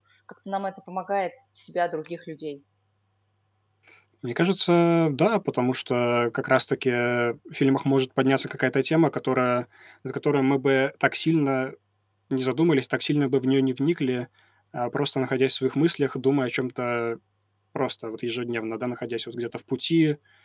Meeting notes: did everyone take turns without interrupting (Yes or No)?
Yes